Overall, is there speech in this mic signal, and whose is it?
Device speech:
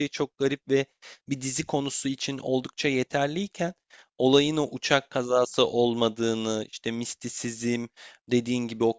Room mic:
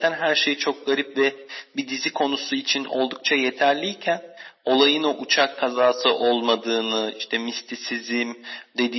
echo only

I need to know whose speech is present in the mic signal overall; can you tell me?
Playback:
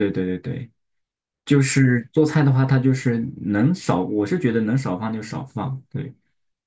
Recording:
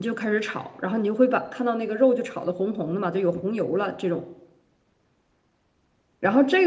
user only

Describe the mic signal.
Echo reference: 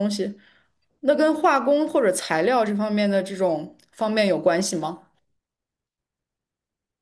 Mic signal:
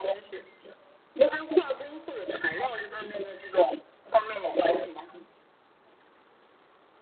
echo only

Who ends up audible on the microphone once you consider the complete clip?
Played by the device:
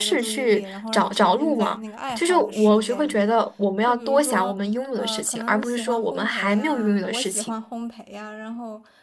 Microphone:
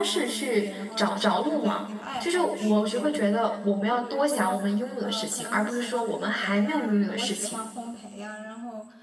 echo only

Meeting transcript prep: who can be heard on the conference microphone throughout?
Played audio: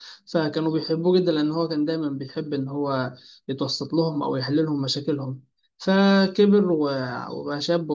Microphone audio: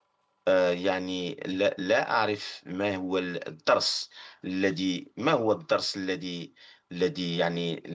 user only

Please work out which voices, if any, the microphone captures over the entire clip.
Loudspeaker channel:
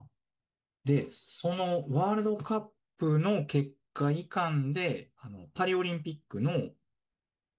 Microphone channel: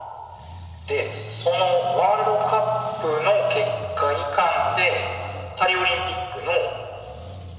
echo only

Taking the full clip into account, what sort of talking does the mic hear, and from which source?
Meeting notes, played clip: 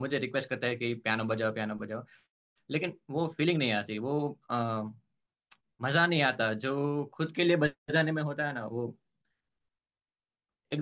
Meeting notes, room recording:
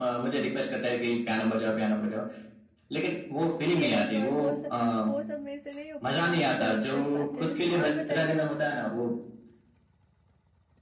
both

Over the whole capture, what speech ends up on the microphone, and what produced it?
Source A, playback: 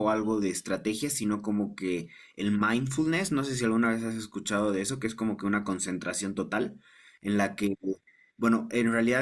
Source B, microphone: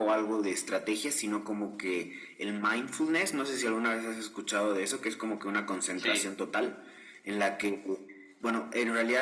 both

